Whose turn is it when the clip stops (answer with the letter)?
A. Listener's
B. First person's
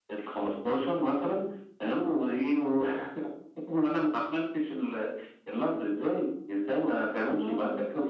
B